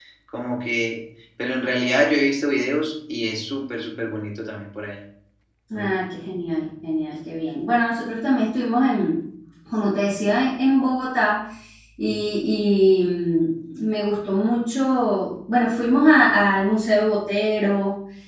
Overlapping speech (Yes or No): No